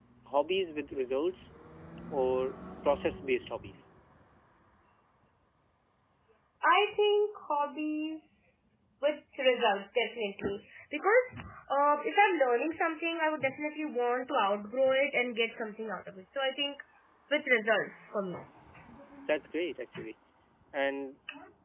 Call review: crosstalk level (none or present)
none